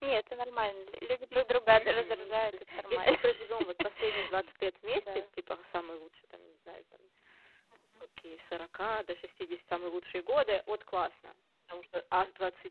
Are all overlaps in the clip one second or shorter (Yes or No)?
No